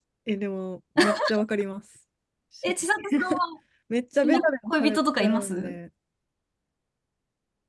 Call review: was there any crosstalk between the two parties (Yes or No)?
Yes